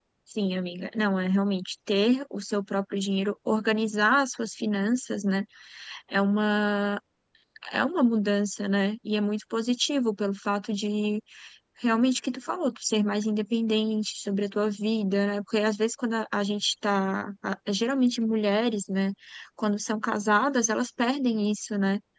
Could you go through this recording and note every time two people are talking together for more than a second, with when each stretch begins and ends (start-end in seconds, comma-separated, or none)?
none